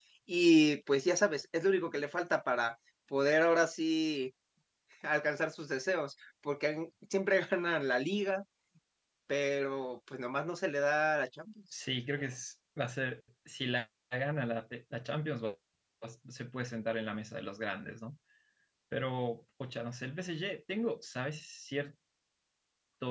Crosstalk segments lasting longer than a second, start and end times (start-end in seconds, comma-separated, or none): none